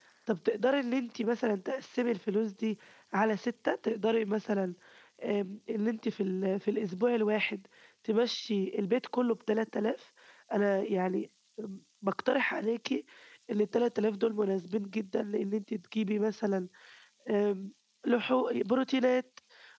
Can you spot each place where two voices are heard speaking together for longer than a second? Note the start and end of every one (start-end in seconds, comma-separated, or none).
none